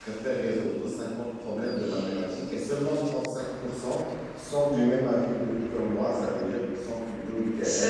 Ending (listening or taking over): taking over